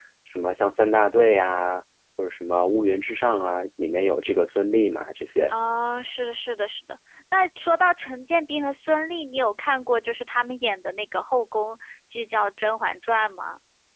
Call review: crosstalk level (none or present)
none